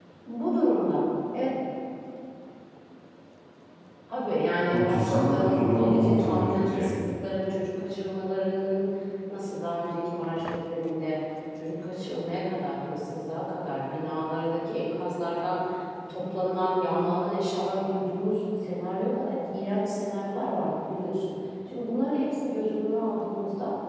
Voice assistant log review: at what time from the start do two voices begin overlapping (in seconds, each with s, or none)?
4.7 s